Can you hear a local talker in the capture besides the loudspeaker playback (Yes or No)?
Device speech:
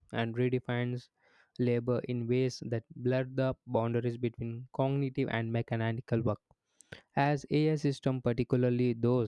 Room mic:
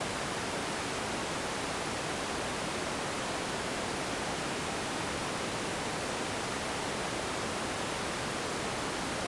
No